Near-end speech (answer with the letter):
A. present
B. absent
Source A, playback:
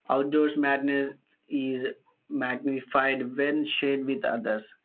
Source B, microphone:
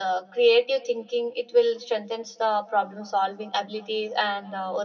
A